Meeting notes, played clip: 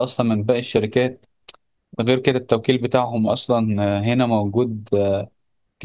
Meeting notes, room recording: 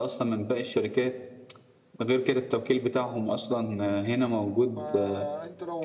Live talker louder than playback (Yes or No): No